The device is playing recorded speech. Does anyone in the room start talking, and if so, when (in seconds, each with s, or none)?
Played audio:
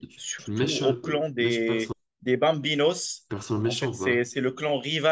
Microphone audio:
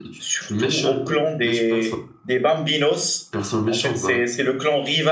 none